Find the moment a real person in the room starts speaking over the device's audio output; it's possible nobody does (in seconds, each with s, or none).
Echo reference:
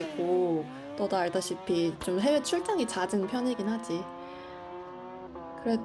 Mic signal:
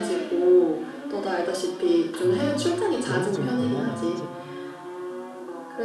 2.2 s